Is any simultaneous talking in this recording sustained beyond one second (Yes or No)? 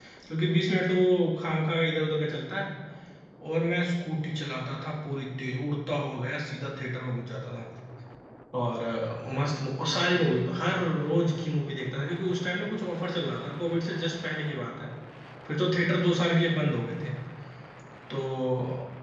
No